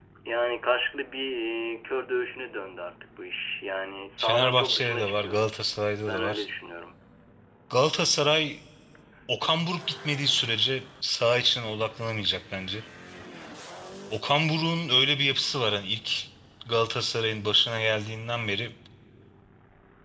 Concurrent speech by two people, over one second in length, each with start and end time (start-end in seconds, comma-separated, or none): 4.2-5.6